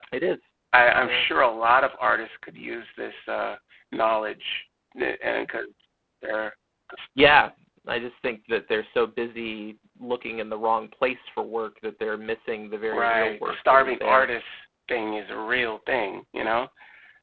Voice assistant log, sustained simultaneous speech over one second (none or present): present